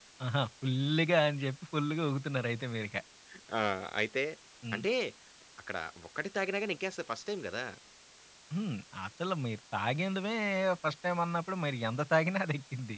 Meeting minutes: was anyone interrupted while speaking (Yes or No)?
No